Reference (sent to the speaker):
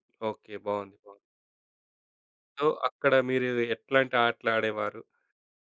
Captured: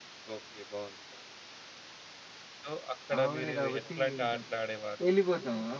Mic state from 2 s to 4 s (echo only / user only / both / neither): both